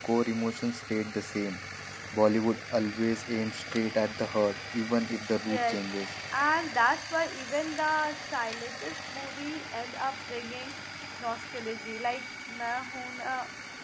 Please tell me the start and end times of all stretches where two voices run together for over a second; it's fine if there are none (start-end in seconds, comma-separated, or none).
none